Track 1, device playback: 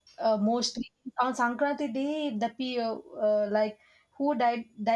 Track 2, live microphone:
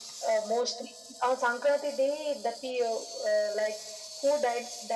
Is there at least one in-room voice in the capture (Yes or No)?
No